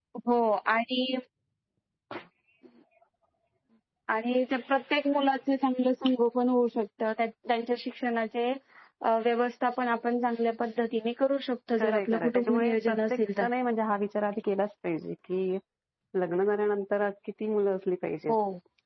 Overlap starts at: 11.8 s

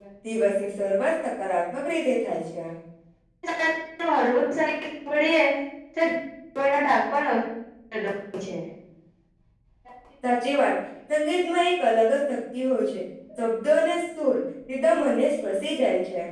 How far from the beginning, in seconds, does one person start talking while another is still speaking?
none

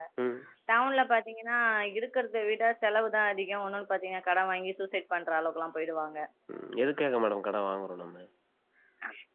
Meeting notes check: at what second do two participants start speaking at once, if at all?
none

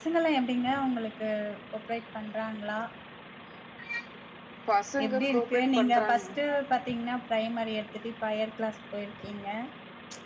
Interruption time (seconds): 5.0 s

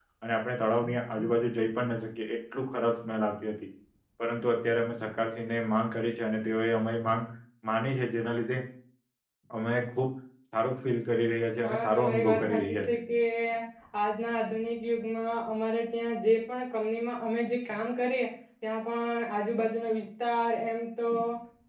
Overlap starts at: 11.6 s

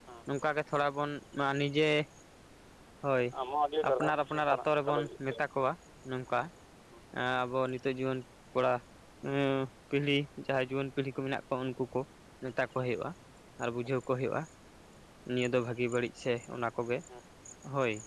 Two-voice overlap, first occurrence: 3.9 s

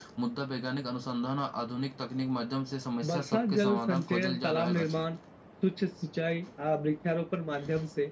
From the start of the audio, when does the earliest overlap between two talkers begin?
3.0 s

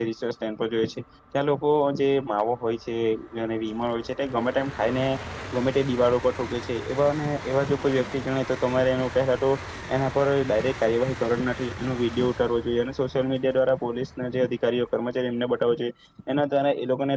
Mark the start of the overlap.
none

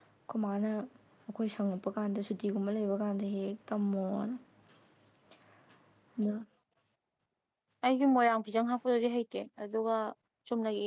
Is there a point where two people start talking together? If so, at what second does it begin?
none

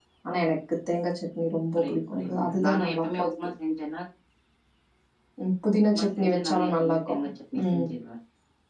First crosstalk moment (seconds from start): 1.8 s

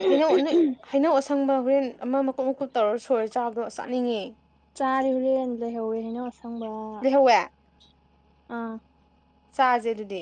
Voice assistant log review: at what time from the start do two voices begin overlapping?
none

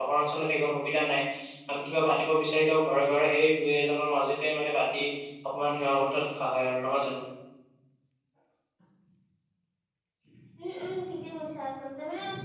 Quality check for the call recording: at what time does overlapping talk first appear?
none

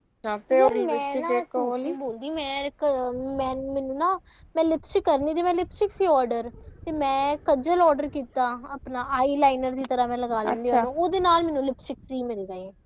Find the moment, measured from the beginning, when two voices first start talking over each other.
0.6 s

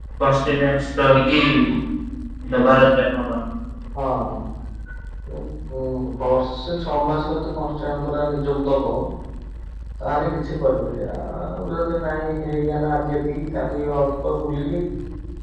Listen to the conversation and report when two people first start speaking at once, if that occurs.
none

